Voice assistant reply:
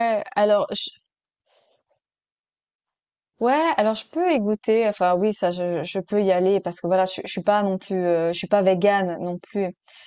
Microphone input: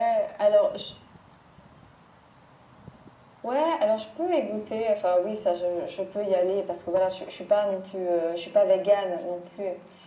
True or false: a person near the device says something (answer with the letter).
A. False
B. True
A